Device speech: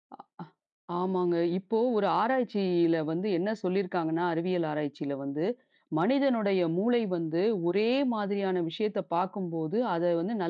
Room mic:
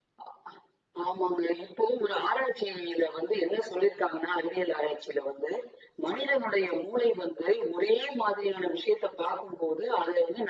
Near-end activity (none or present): none